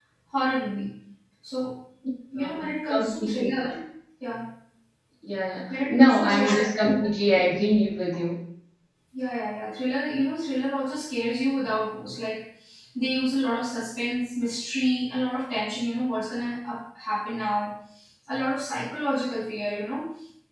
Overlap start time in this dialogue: 2.4 s

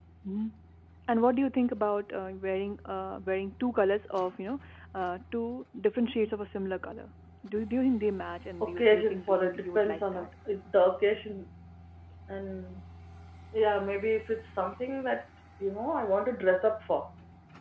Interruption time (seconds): 8.6 s

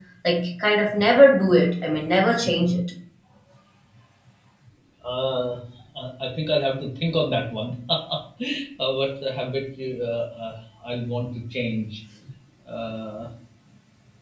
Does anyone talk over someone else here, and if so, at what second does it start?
none

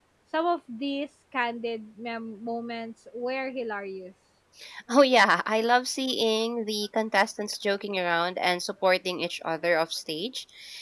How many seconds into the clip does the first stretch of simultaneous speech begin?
none

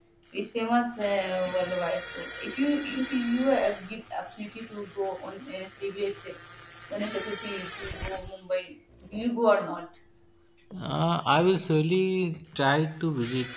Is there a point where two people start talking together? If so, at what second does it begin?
none

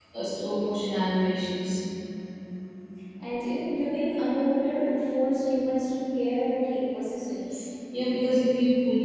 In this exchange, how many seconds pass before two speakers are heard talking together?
none

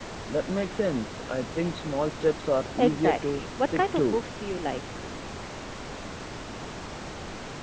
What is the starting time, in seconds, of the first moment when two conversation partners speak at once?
2.8 s

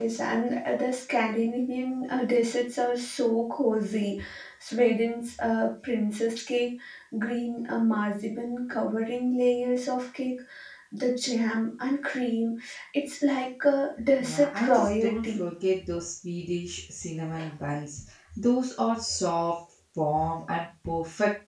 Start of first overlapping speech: 14.2 s

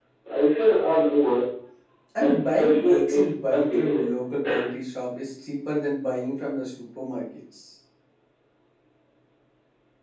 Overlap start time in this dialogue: 2.2 s

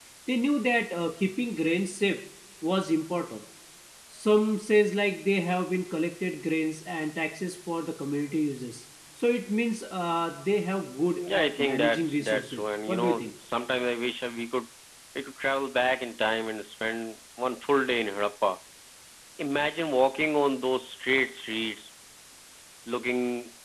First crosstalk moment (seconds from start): 11.2 s

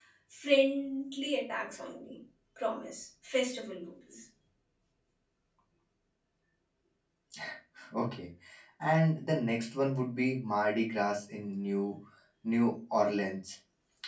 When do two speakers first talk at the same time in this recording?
none

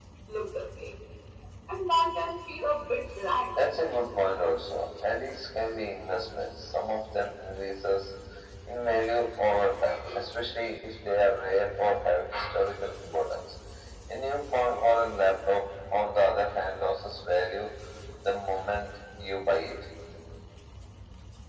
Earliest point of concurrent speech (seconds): none

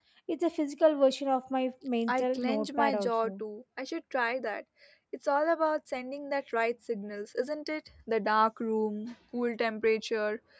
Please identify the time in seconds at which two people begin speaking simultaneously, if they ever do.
2.1 s

